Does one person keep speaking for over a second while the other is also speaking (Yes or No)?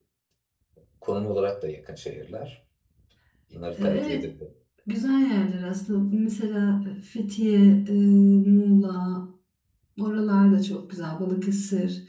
No